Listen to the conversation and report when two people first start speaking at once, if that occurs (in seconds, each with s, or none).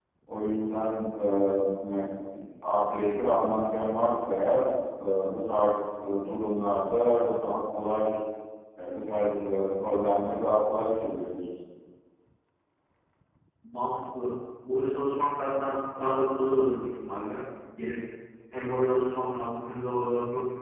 none